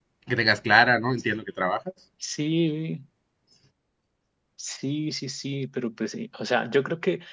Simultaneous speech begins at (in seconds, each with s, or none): none